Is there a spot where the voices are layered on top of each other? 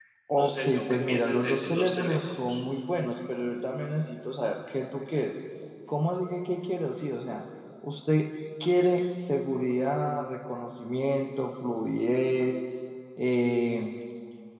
Yes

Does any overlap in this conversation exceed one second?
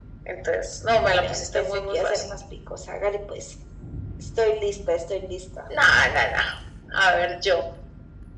Yes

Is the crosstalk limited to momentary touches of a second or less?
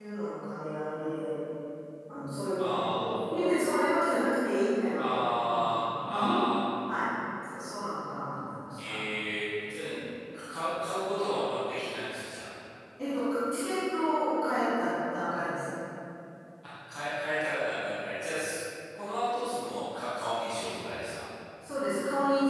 No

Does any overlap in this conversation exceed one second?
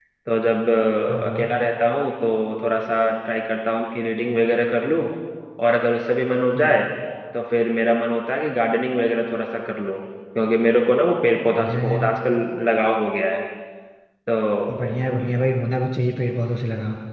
No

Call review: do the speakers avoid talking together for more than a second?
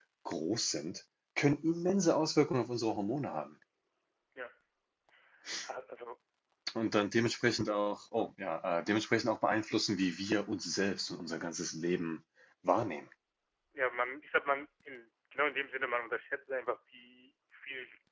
Yes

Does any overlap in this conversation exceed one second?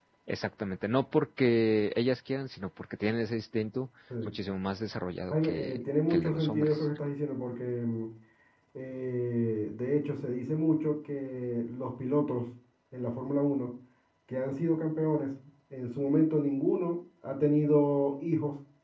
Yes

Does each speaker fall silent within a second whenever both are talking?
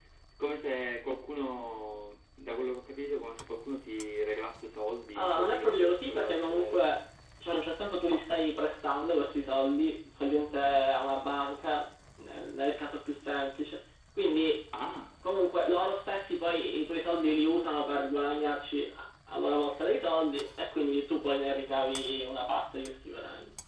No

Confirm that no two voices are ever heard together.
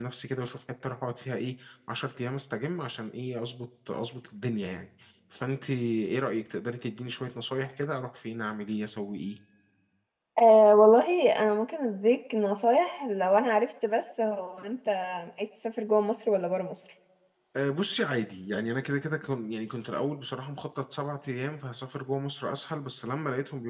Yes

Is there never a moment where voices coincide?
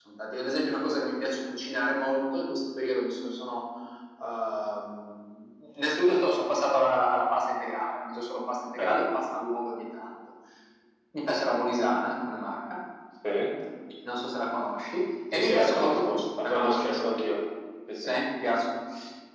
No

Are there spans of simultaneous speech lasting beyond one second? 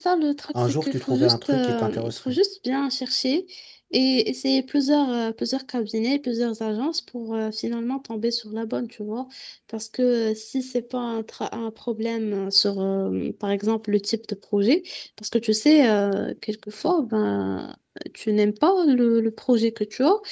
Yes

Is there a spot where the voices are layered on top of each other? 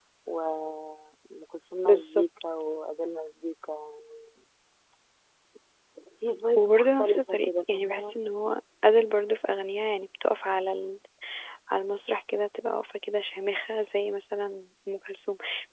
Yes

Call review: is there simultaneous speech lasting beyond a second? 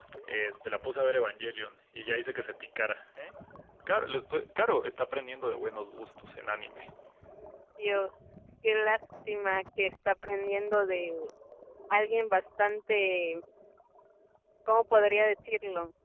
No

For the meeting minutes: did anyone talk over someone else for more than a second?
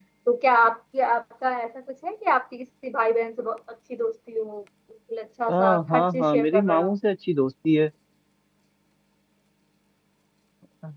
Yes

